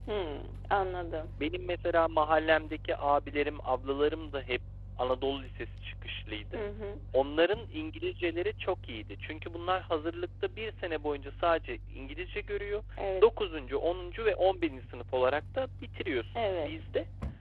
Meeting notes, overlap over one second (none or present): none